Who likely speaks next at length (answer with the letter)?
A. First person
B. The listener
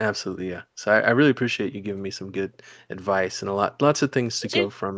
A